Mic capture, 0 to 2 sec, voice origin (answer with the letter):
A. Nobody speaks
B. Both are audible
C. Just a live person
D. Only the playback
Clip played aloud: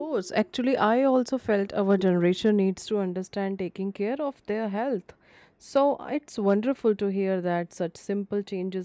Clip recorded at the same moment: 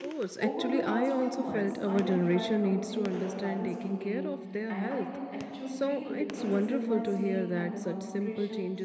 B